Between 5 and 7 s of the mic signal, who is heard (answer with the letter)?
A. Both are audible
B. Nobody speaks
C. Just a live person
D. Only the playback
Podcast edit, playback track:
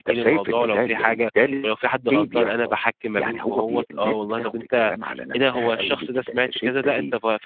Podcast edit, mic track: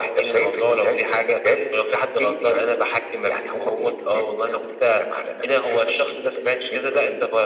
D